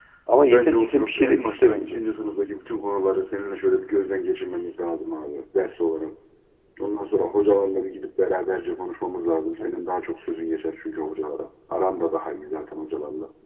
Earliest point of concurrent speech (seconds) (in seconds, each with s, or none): 0.5 s